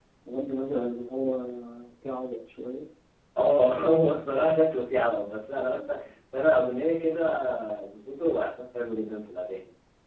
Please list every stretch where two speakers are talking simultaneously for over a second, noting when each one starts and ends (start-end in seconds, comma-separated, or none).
none